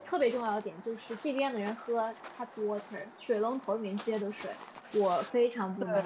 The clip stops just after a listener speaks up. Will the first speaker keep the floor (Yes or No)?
Yes